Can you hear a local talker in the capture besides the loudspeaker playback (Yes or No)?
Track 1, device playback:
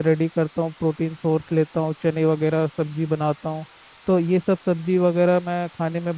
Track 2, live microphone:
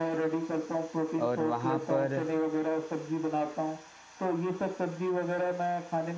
Yes